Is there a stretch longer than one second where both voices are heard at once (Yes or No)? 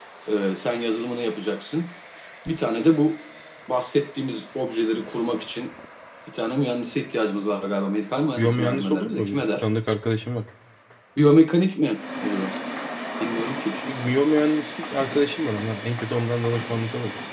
Yes